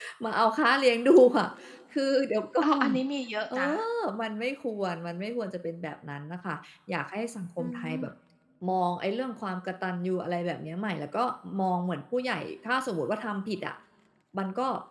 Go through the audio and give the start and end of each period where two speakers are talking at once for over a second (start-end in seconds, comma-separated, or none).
none